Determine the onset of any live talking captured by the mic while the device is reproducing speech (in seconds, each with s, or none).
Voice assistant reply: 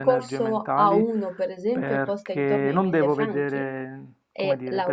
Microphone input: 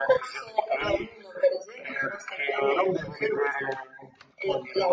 none